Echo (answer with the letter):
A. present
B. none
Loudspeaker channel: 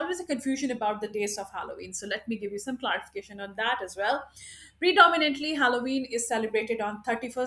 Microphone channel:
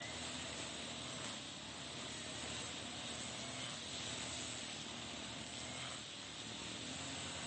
B